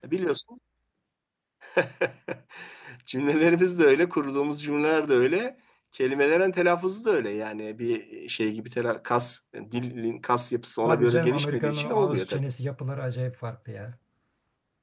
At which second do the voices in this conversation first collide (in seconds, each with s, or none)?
10.8 s